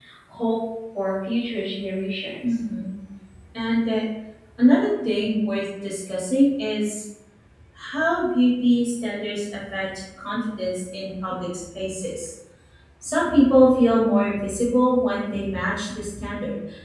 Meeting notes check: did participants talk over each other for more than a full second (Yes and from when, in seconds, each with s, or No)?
No